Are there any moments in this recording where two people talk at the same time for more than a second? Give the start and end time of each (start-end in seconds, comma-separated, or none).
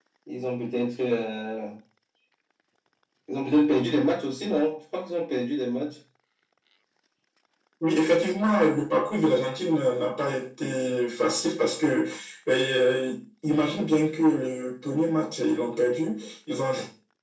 none